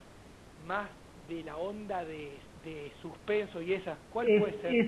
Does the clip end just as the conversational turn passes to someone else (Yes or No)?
Yes